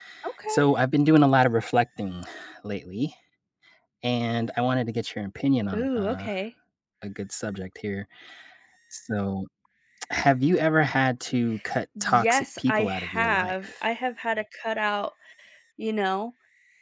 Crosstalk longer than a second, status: present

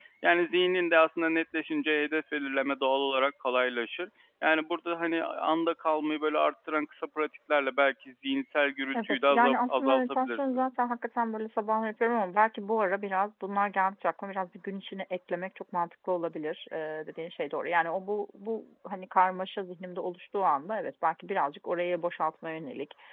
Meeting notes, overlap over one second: present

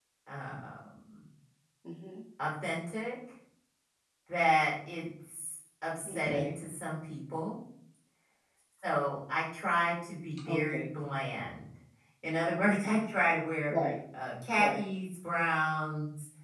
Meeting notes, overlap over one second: none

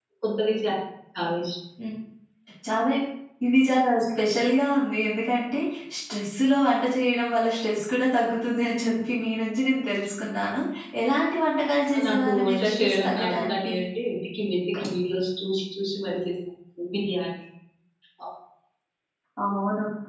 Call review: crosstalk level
present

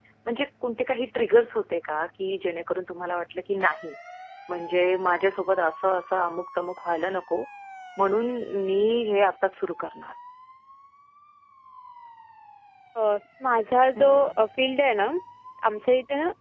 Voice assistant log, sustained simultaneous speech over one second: none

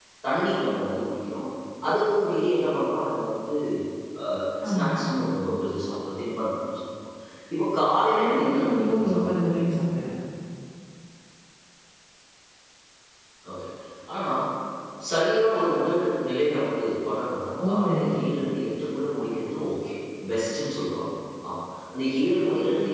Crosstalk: present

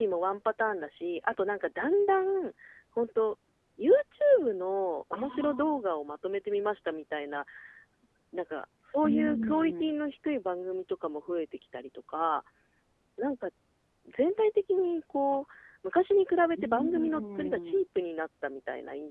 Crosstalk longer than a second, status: present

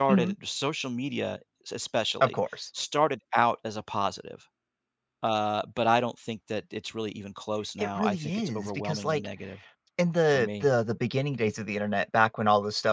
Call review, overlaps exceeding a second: present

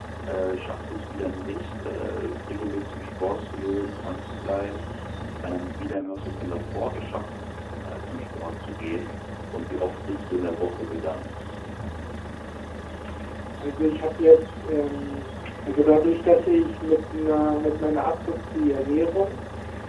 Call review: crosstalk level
none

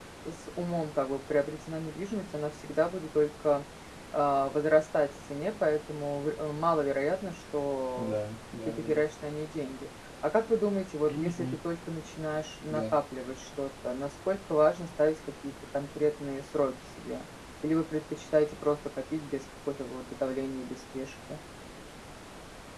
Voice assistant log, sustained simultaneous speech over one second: none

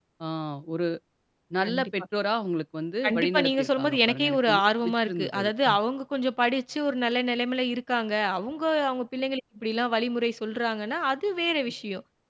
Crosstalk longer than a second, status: present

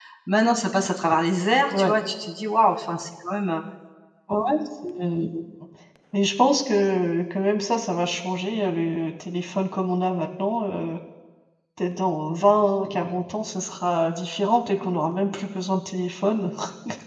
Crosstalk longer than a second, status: none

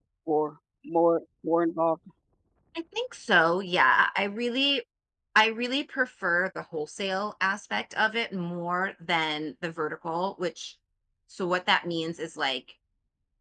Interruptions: none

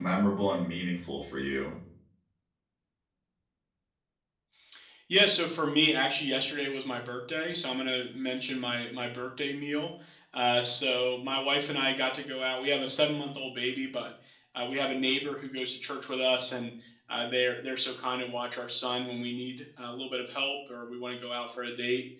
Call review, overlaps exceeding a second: none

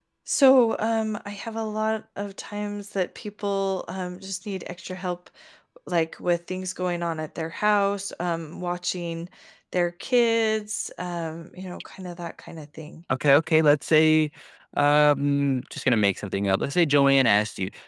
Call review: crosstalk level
none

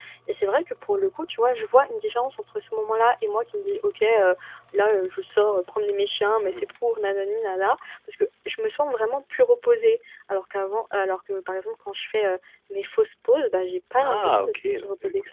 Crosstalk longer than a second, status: present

